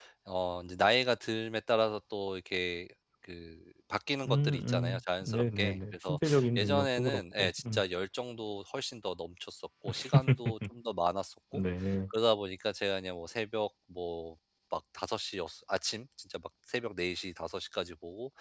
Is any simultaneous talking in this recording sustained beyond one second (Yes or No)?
Yes